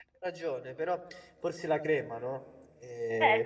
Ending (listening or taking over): taking over